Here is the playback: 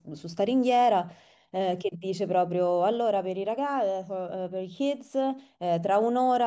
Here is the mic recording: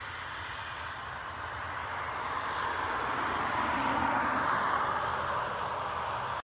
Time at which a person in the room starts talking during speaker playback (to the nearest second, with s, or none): none